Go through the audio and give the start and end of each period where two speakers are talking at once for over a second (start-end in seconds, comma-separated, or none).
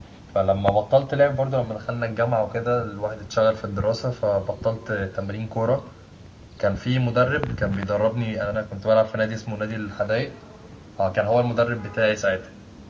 none